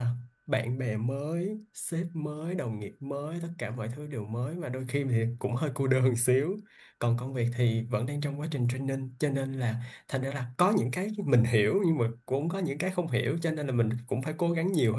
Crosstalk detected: No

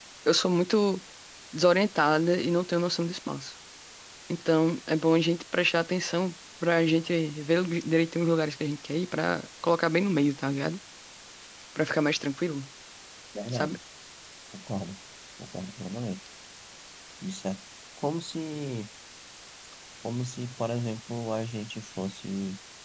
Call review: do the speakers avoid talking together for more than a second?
Yes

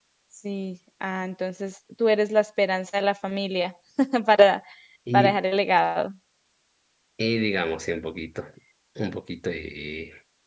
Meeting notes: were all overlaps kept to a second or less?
Yes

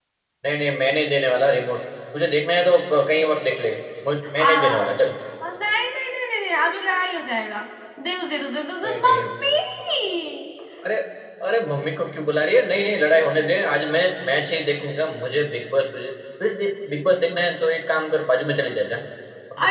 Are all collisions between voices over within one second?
Yes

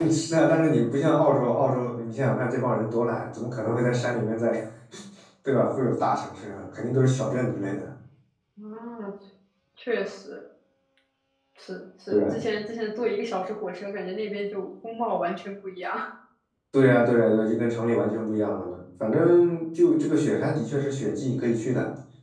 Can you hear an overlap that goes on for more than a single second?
No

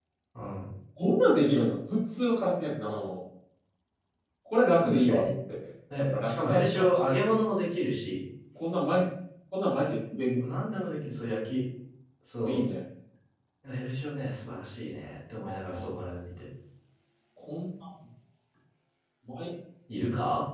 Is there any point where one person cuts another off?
Yes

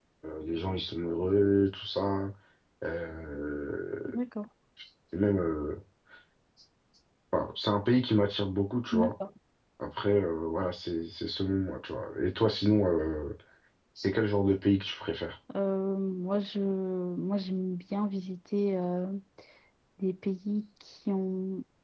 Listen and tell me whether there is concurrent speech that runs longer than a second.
No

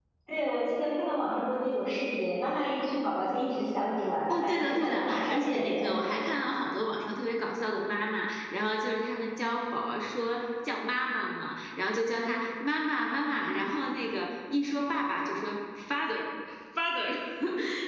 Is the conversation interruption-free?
No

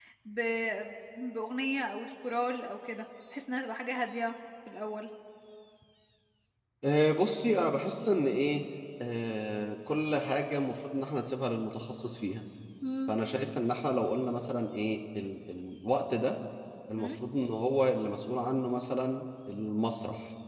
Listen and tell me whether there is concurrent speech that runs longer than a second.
No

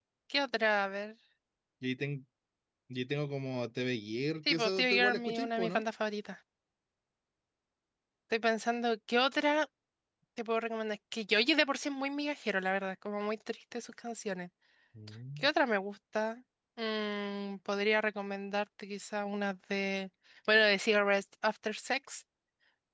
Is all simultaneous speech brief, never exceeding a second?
No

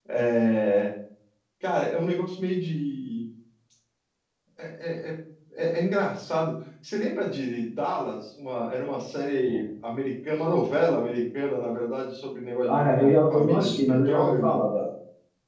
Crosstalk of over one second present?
Yes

